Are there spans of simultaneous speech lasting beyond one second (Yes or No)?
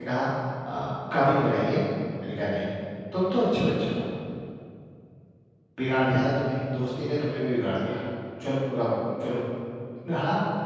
No